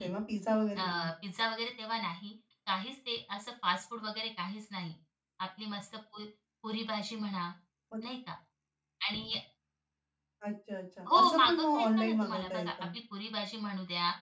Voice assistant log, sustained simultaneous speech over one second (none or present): present